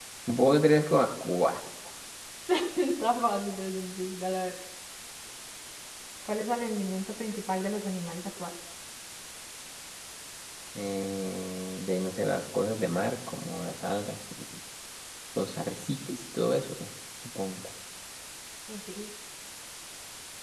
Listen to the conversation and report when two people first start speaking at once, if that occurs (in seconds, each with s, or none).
none